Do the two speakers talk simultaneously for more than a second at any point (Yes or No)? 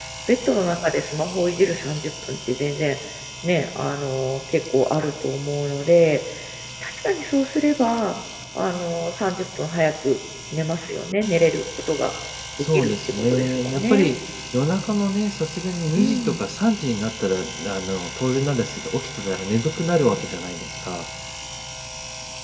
Yes